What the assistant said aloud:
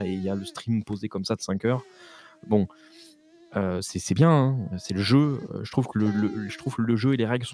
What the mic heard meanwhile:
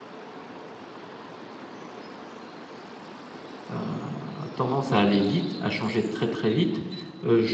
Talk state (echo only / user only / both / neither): user only